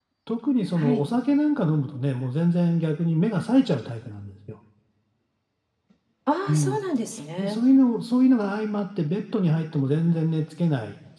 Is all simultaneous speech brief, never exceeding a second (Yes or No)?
Yes